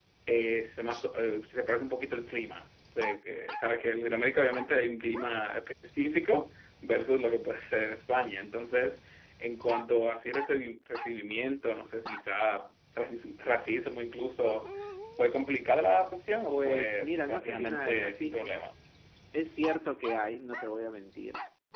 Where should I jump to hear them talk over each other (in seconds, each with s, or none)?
16.5 s